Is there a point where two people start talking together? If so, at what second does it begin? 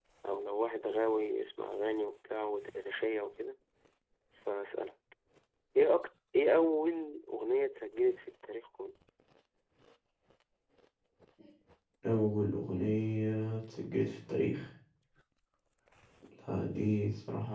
none

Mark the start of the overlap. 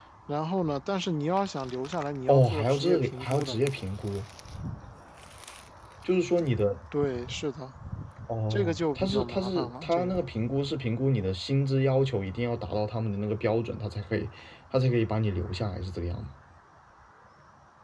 2.3 s

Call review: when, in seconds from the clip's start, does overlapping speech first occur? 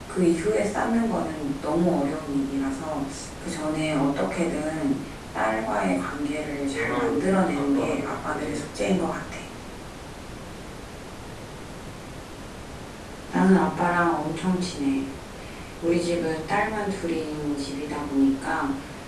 6.7 s

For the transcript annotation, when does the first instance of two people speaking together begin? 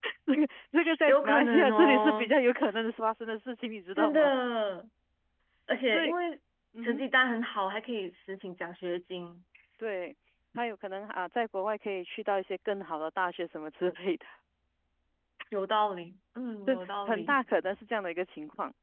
1.1 s

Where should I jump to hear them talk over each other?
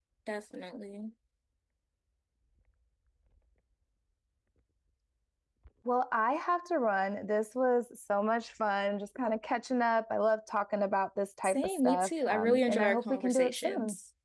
11.4 s

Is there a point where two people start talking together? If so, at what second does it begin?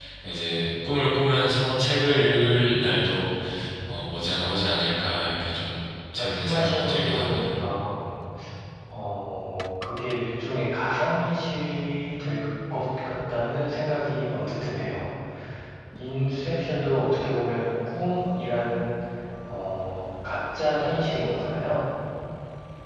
6.2 s

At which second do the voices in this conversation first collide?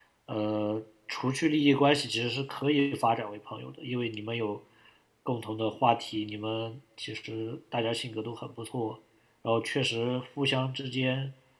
none

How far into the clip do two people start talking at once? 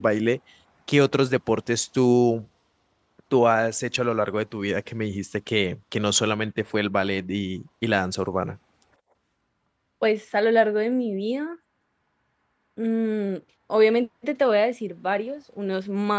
none

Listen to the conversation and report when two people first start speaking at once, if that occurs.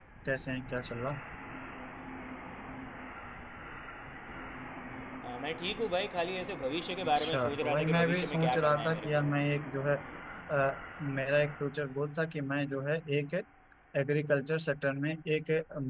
7.2 s

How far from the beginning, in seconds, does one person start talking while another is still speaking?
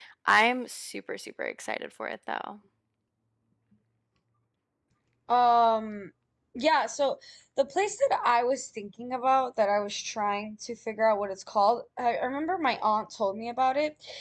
none

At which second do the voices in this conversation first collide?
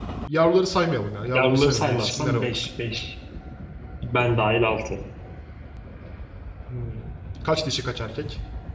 1.3 s

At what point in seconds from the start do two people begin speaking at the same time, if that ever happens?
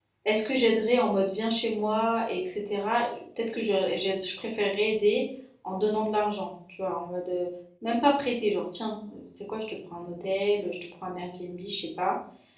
none

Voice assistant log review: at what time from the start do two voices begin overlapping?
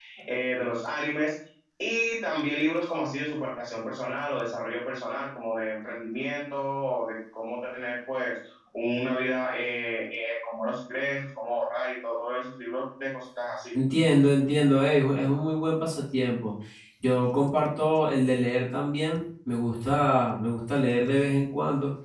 none

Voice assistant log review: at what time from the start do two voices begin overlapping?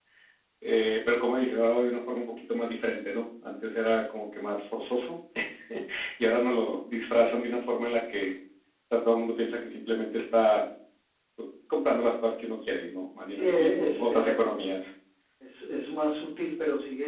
13.3 s

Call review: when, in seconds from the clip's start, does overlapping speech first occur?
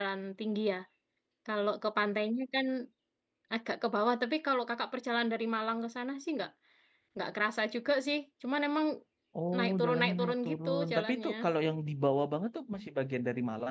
9.6 s

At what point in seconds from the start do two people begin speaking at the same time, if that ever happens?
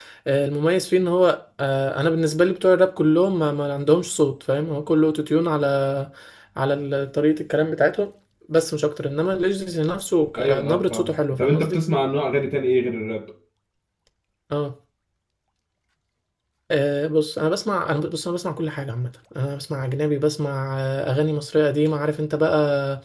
10.3 s

